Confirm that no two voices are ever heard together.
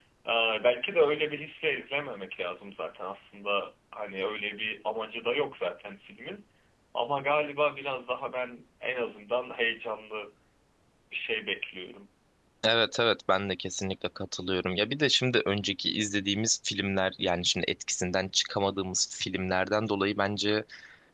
Yes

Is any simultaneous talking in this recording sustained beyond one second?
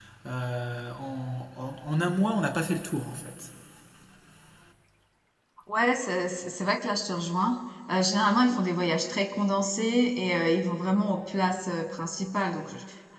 No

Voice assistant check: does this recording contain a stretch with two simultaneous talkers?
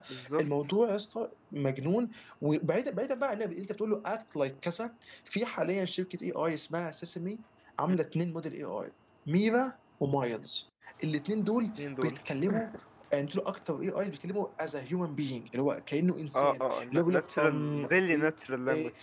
Yes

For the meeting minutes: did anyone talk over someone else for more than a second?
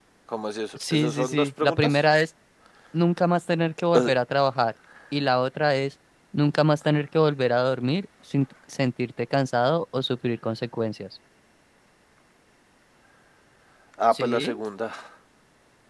Yes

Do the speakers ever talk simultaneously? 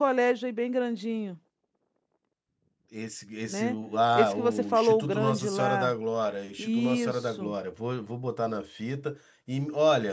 Yes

